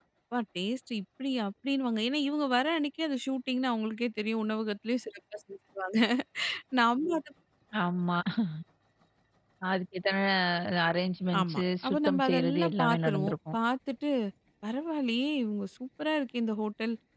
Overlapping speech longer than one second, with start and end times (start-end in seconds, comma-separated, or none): 11.4-13.6